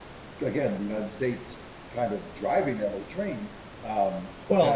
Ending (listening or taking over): taking over